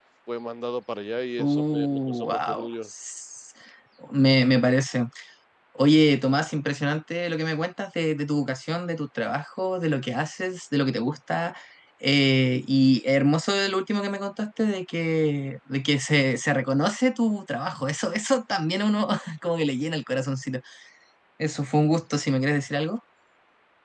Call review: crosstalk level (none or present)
present